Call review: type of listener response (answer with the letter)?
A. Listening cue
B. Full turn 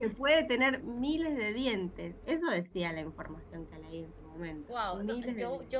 B